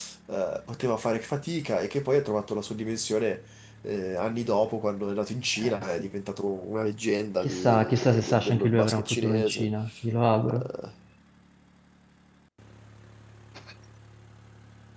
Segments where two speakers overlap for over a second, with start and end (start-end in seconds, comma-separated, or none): 7.4-9.7